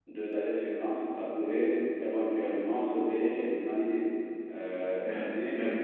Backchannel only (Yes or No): No